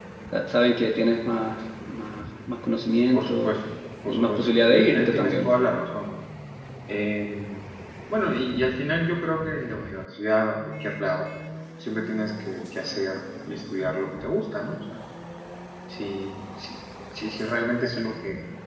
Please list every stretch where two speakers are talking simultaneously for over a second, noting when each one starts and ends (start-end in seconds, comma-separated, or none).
4.0-5.5